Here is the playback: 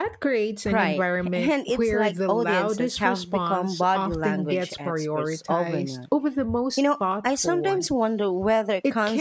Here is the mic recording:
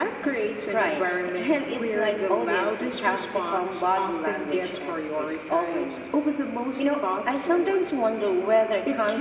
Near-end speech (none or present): none